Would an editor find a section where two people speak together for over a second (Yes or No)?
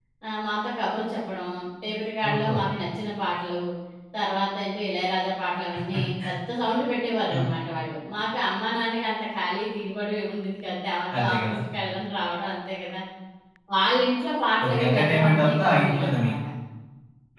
Yes